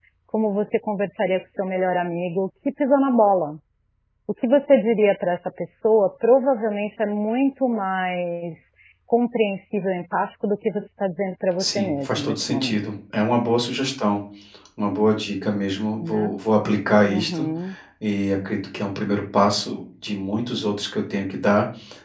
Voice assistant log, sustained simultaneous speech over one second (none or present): present